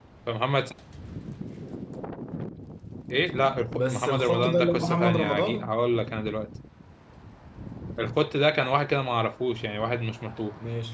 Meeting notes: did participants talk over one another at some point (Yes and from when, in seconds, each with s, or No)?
Yes, from 3.7 s